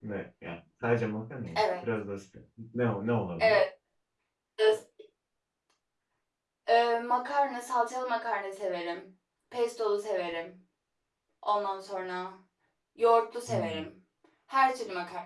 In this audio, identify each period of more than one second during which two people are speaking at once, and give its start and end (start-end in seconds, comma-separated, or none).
none